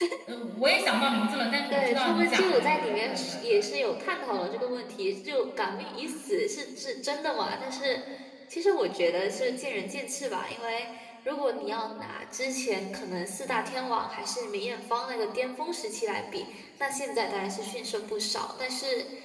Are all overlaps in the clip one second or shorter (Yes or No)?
No